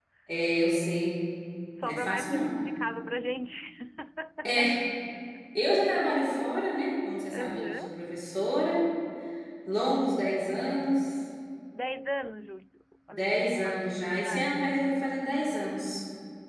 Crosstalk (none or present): present